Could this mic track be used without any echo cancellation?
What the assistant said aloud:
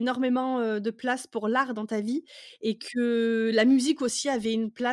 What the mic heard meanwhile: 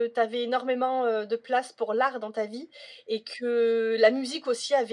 No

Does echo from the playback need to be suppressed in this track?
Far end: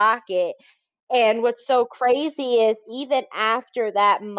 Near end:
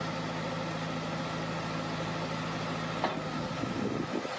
No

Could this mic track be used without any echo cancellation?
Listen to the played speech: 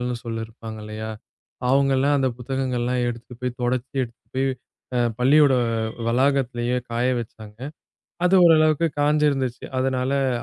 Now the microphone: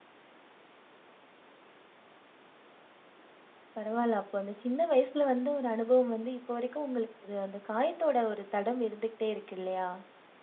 Yes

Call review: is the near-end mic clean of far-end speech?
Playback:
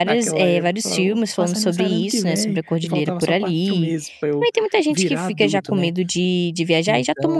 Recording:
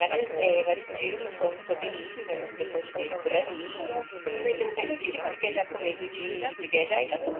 No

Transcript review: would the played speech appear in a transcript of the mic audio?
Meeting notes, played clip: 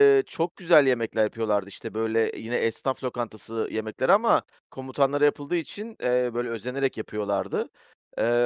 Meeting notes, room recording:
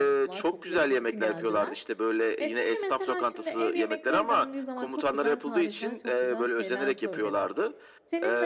Yes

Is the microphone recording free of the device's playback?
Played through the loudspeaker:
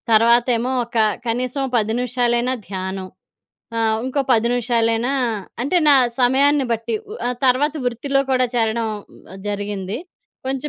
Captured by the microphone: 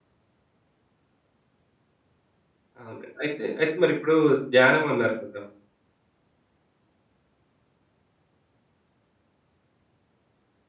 Yes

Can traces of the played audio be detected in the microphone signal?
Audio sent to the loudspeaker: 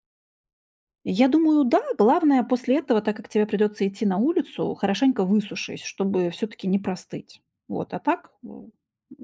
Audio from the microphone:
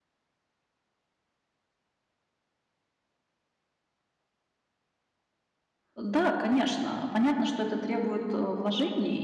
No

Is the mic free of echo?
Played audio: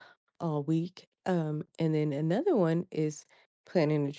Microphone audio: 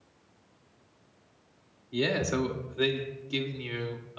Yes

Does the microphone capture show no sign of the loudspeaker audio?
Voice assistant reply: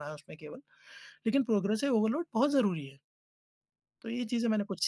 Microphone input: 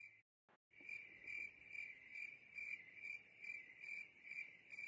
Yes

